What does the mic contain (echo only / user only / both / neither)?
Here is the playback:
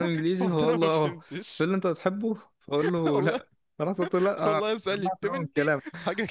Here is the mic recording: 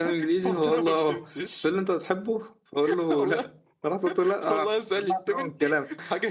echo only